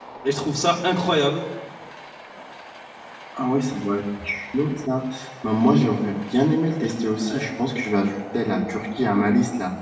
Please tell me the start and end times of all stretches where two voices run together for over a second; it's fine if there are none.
none

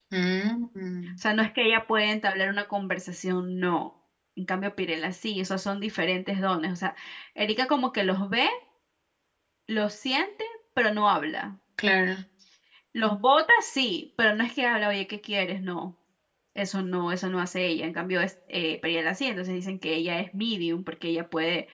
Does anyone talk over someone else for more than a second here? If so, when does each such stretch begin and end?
none

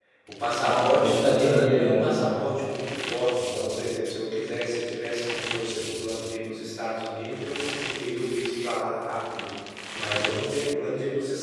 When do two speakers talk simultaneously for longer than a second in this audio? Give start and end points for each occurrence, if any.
0.6-2.4

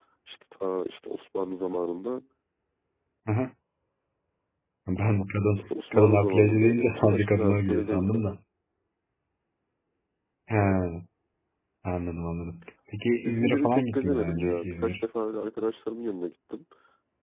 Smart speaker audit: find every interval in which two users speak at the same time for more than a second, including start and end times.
5.6-8.2, 13.2-15.0

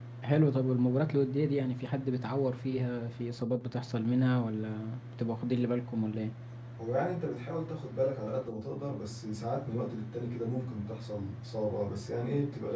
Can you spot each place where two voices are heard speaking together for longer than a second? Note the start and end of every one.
none

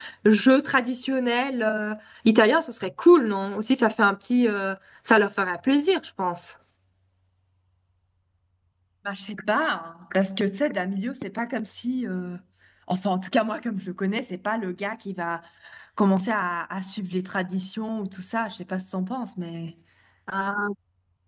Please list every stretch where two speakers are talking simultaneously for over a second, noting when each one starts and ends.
none

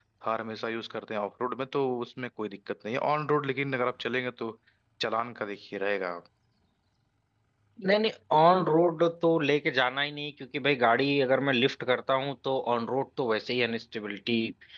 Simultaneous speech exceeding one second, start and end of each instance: none

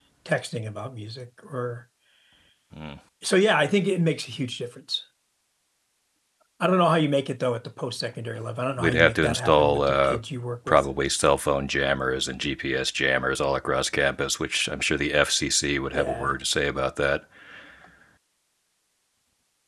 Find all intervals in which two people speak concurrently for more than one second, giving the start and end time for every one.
8.8-10.2

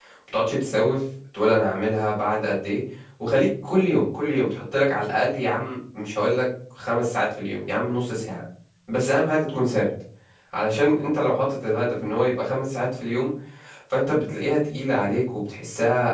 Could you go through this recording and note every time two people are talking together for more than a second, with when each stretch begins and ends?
none

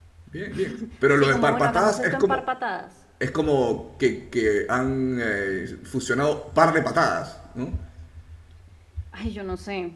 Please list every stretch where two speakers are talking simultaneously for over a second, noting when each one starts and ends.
1.2-2.4

